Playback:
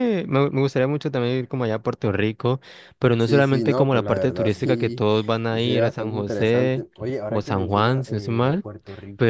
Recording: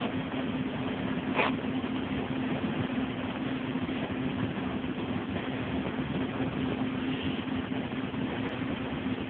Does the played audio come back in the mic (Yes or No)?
No